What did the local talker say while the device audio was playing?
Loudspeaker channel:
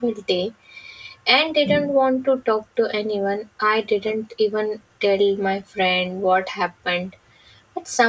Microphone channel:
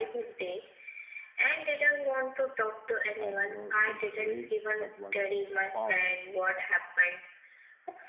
and you know it is rare but once found

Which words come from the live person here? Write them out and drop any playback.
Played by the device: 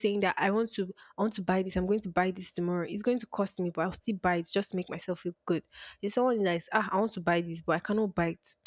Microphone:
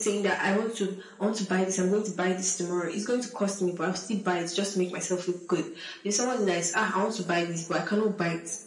none

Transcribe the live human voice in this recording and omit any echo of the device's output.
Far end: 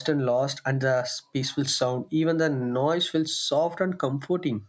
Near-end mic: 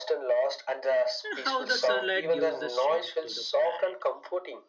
and how the sunlight gives the strength to the planet.

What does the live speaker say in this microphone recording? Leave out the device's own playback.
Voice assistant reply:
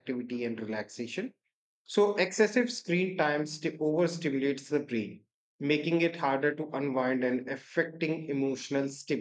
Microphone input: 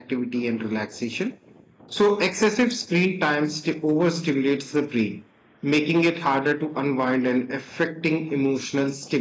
none

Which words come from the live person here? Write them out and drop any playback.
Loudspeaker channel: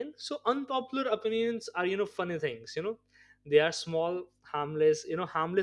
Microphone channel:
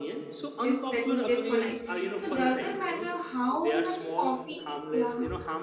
this that needed for life. So doesn't matter how much coffee, yeah.

